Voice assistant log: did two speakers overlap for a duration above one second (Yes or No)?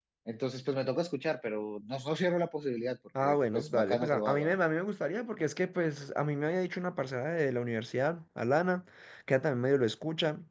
Yes